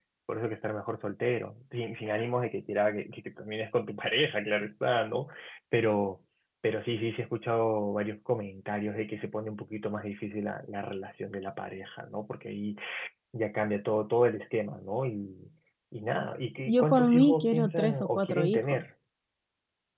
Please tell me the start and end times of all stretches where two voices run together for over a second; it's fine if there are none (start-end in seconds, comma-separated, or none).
16.7-18.8